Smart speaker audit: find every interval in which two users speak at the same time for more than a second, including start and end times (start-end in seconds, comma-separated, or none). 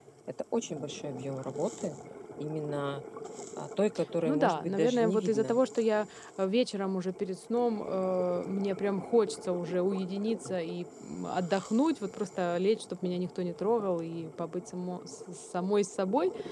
4.2-5.6